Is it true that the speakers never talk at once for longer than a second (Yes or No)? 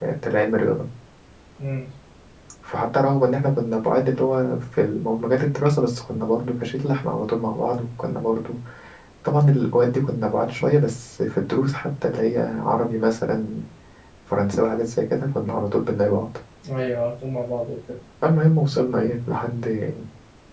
Yes